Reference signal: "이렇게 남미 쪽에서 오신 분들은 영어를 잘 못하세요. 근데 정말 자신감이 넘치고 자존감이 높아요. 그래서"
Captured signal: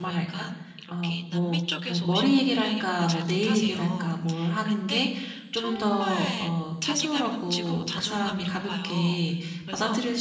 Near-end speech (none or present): present